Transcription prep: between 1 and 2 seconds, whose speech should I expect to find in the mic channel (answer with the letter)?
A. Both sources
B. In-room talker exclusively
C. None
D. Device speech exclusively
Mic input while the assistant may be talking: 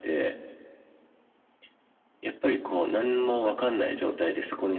C